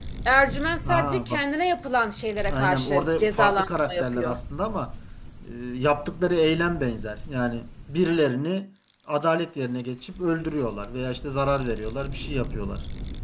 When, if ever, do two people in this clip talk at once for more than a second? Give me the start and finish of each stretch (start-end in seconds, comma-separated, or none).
2.5-4.3